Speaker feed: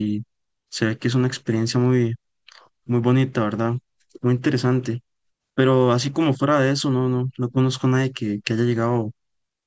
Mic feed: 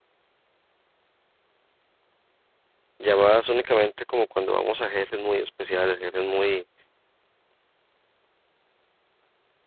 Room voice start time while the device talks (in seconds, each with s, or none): 3.0 s